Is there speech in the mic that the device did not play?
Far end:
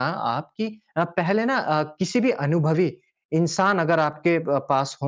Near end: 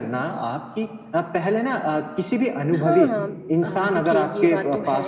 Yes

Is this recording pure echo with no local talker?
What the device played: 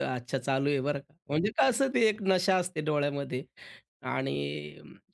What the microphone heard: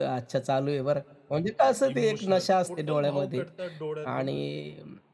No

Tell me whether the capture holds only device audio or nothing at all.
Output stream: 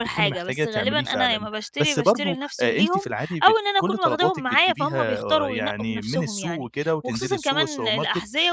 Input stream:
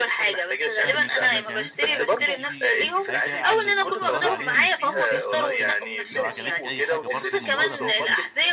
No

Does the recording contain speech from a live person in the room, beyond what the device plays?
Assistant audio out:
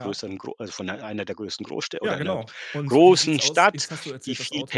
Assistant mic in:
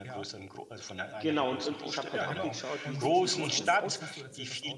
Yes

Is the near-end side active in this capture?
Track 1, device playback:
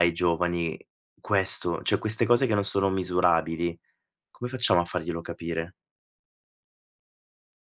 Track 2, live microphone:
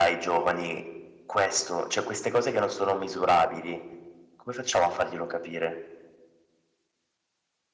No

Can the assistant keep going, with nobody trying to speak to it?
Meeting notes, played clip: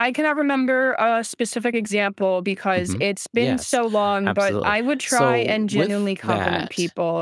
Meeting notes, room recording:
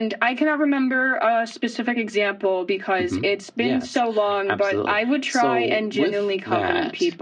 Yes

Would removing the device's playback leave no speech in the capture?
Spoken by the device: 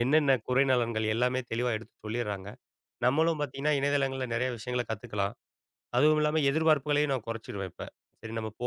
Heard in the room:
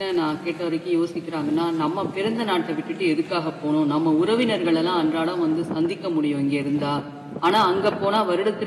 No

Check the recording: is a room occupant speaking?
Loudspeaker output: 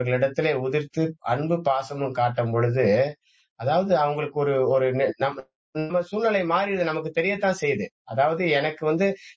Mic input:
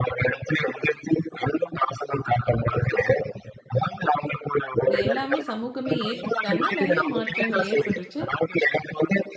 Yes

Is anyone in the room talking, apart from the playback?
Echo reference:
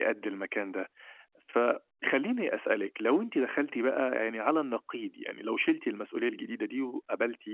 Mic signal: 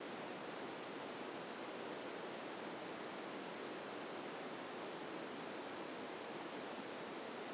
No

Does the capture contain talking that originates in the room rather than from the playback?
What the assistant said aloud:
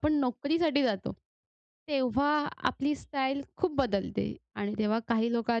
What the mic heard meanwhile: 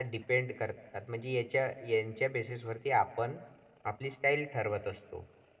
Yes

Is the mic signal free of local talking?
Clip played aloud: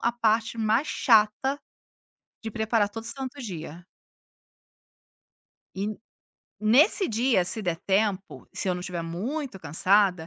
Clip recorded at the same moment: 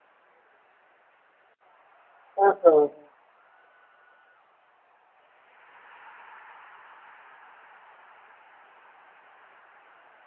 No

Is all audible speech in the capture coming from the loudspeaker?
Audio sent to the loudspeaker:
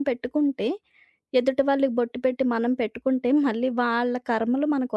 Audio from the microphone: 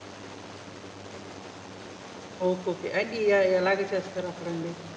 No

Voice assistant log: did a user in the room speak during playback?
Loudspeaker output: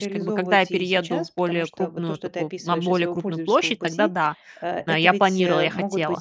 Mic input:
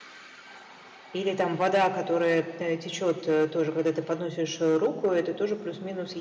Yes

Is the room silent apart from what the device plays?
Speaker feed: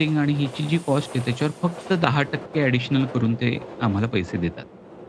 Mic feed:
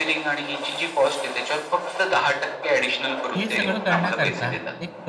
No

